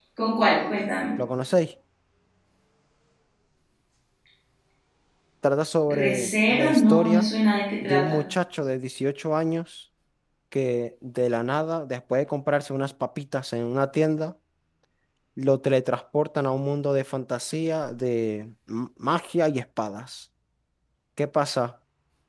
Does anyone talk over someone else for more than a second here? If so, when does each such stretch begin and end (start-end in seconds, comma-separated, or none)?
6.0-7.3